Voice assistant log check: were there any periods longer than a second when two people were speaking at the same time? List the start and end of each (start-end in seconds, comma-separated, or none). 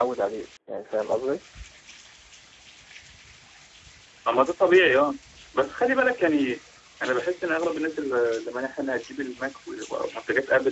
none